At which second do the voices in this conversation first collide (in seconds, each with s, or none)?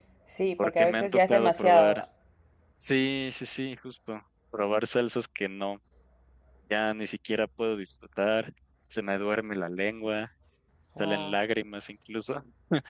0.6 s